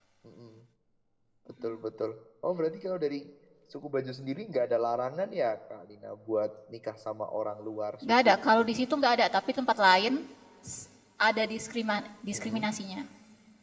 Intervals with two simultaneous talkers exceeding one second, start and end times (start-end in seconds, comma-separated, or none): none